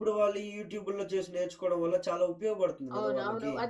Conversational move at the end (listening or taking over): taking over